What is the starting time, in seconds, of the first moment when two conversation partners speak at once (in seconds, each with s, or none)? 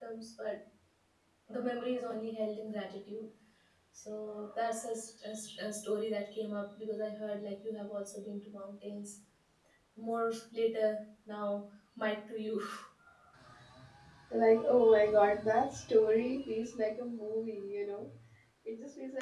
none